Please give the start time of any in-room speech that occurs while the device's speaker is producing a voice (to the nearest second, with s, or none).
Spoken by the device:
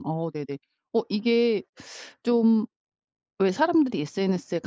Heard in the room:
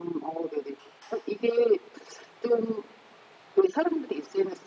none